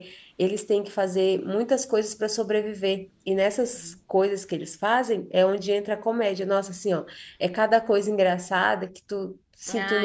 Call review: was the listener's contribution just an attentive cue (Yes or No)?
No